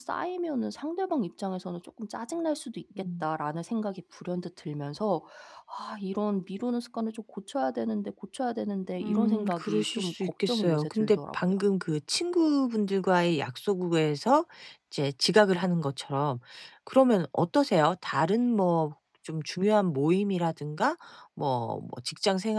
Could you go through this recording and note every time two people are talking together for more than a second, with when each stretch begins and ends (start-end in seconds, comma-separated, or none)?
9.0-11.6